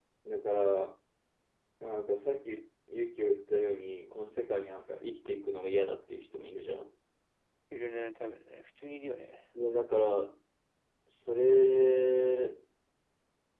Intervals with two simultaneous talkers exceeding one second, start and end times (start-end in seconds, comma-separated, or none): none